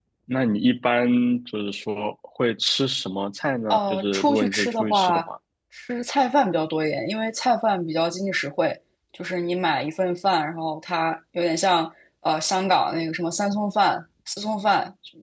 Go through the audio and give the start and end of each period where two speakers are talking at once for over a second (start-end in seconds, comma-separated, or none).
3.7-5.3